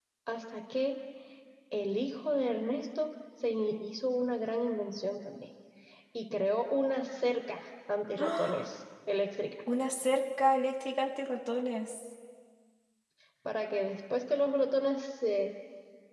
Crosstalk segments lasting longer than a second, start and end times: none

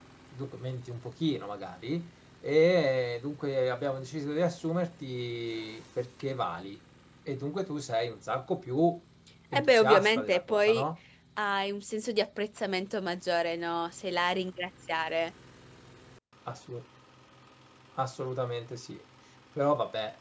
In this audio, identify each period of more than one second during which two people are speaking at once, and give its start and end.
9.6-10.8

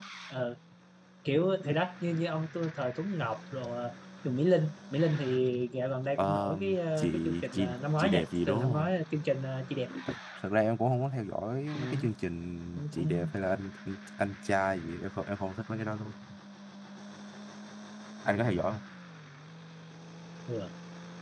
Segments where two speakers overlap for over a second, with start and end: 6.2-8.9

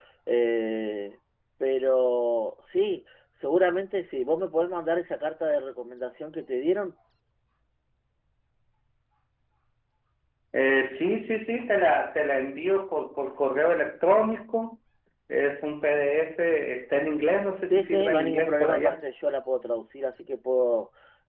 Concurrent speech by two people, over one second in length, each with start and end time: 17.7-18.9

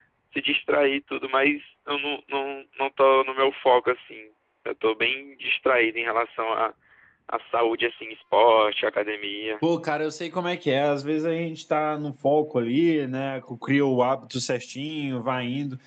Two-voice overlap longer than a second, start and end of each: none

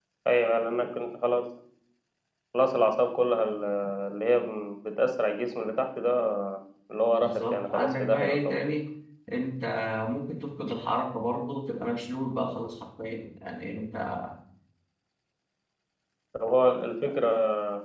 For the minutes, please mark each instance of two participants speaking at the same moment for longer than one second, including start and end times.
7.1-8.6

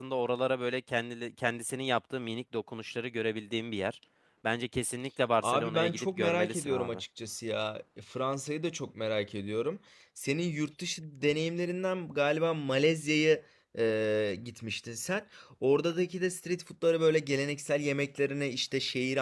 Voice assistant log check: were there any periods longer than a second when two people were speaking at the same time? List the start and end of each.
5.4-7.0

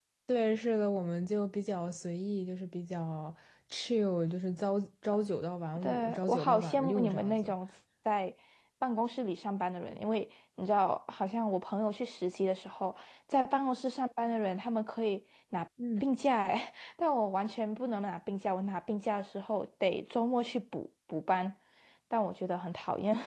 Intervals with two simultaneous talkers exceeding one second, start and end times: 5.8-7.5

